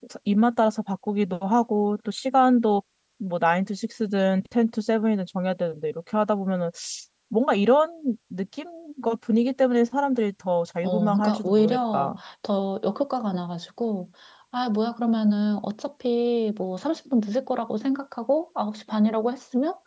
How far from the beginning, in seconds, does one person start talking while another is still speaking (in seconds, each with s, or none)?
10.8 s